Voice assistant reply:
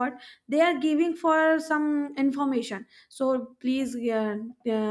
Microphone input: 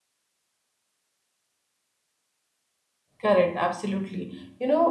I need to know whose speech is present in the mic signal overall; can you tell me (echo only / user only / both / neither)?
user only